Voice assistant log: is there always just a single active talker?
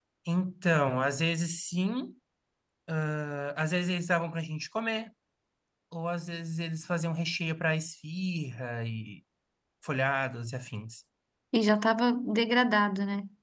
Yes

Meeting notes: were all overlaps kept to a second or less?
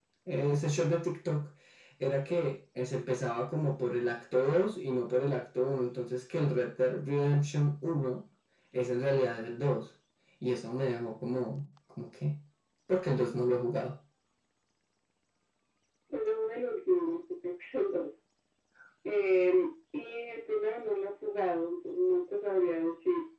Yes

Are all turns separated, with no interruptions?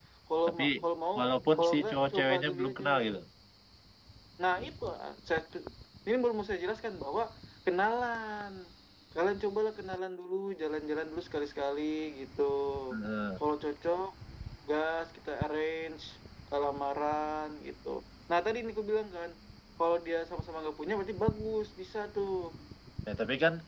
No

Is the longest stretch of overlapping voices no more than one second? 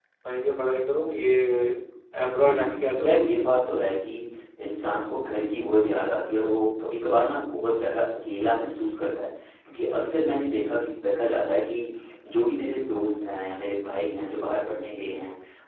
No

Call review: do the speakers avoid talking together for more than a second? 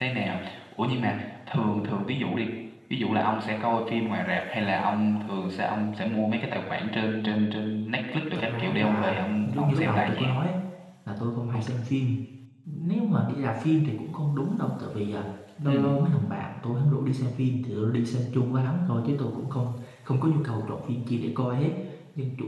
No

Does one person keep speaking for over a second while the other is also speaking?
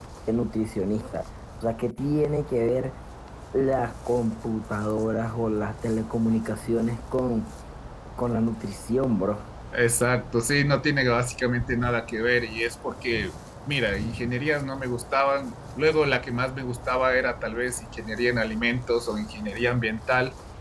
No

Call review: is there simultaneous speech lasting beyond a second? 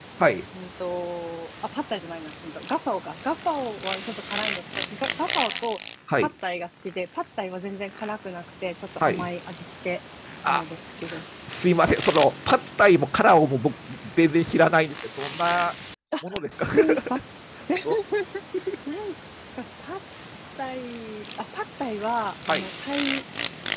No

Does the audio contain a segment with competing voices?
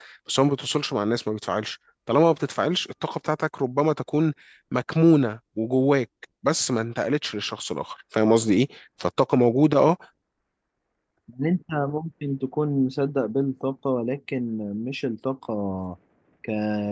No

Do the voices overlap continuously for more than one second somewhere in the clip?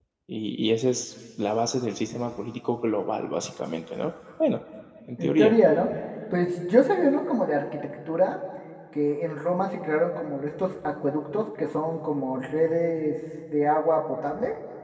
No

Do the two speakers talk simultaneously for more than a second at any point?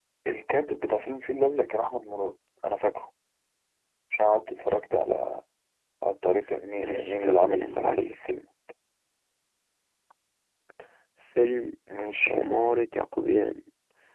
Yes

